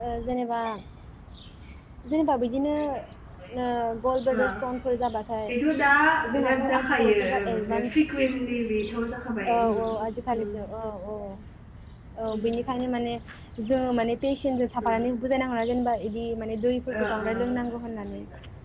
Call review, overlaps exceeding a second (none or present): present